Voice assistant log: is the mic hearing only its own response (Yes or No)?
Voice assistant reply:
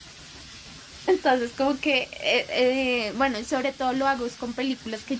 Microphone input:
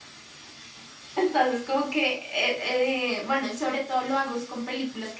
Yes